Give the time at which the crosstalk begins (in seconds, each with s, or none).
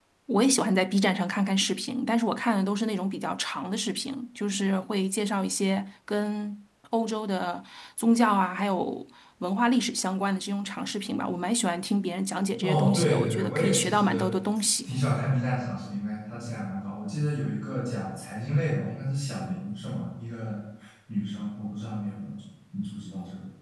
12.6 s